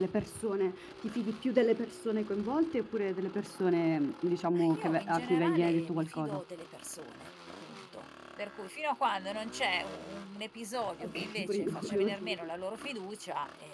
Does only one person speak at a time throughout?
No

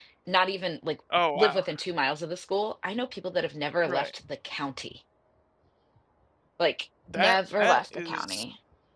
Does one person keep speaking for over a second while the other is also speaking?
Yes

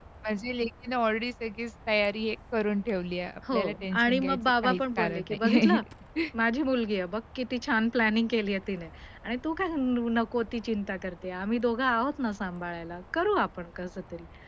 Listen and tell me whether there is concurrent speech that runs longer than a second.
Yes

